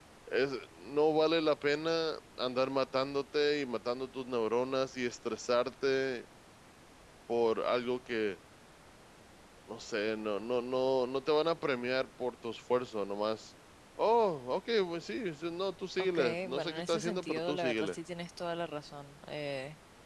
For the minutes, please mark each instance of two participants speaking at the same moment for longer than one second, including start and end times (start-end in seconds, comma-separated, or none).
16.0-17.9